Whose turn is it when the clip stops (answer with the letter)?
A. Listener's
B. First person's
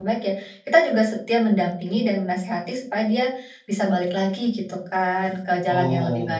A